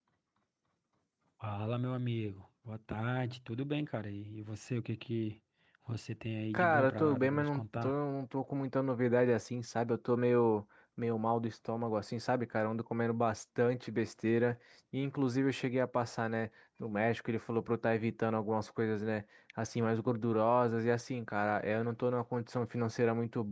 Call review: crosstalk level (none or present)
present